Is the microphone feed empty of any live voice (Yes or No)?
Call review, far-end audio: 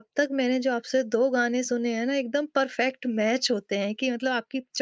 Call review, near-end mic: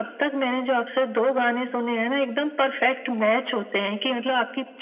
Yes